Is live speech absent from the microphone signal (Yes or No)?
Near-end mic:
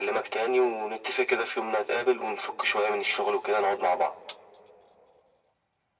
Yes